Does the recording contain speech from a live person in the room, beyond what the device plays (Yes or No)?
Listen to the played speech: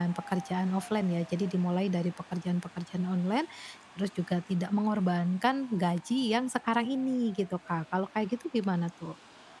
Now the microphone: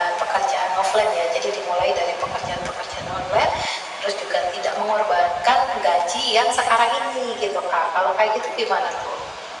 No